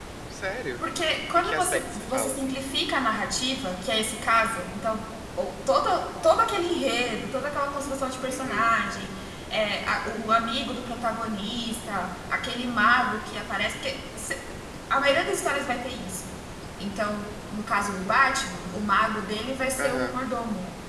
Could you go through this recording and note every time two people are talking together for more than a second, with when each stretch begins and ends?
1.4-2.6

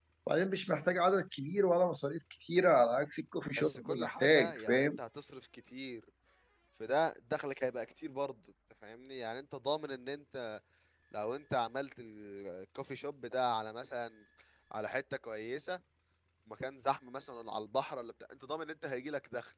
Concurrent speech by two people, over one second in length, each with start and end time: 3.6-4.9

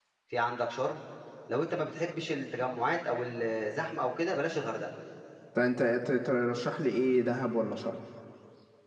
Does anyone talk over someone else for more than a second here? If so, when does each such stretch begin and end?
none

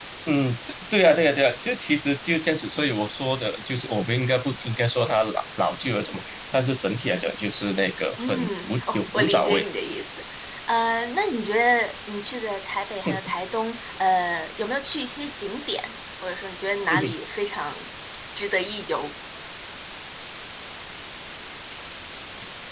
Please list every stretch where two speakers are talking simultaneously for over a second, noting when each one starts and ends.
8.2-9.7

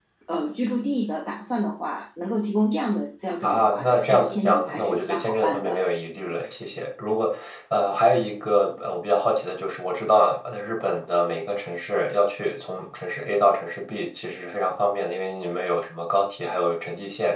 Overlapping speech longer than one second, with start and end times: 3.4-5.8

